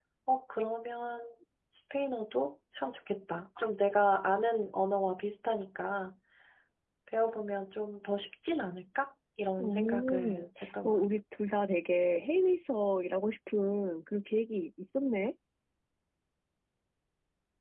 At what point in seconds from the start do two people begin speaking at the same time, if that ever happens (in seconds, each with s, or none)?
9.6 s